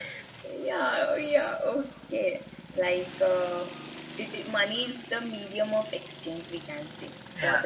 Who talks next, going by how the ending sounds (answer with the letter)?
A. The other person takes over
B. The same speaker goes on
B